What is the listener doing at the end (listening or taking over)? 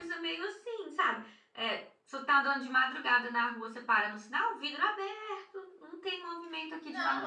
taking over